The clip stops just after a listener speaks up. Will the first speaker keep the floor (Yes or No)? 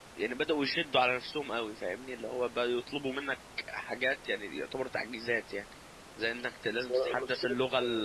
Yes